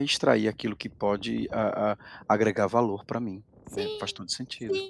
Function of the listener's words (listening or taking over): taking over